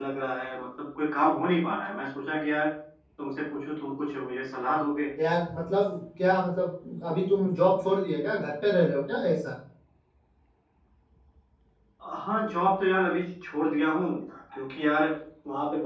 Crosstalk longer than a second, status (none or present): none